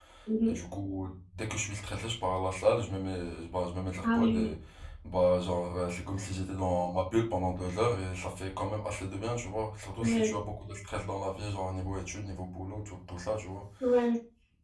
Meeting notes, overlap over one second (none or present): none